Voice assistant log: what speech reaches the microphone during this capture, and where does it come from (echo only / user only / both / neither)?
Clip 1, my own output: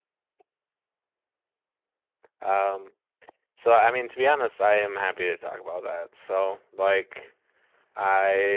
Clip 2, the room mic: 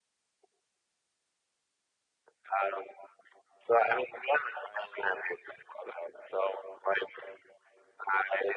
echo only